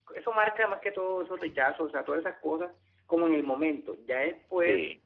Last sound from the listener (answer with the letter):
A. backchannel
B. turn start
A